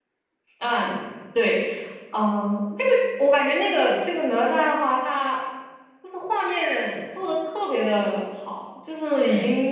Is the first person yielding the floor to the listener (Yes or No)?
No